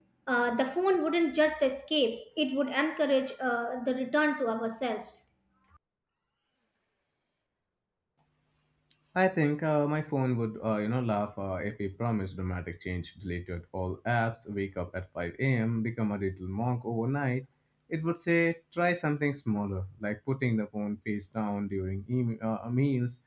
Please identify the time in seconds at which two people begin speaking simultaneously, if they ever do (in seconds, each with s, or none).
none